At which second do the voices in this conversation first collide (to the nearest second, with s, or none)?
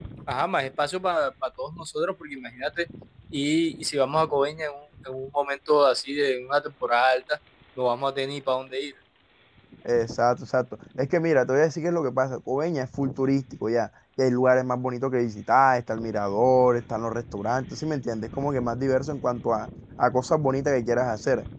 none